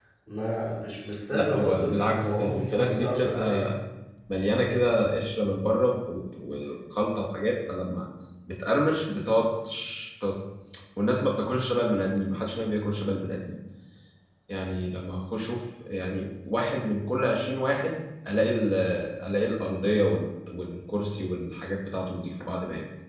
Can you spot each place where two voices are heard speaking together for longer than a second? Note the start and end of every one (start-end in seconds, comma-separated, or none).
1.3-3.7